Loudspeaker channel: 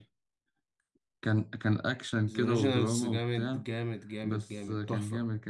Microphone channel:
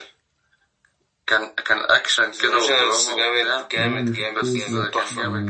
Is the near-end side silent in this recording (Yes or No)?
No